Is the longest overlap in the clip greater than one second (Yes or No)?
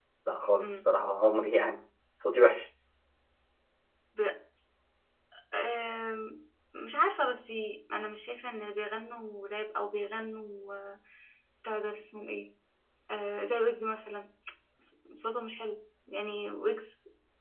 No